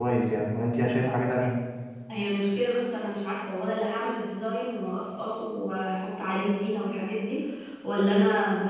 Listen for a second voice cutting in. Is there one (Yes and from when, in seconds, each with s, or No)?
No